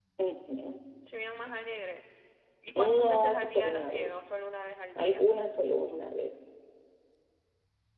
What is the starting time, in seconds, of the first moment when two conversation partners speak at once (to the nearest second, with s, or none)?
3 s